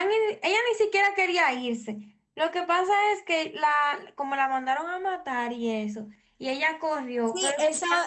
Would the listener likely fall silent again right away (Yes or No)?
No